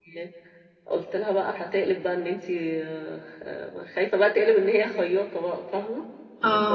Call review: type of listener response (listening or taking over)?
listening